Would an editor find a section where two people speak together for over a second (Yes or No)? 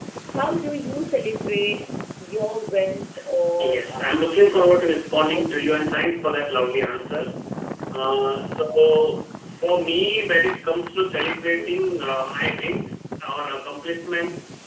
Yes